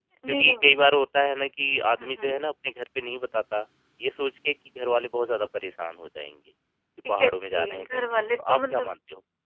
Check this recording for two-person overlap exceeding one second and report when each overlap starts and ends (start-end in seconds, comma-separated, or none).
7.1-9.0